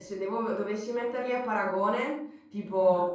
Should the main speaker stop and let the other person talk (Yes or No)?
No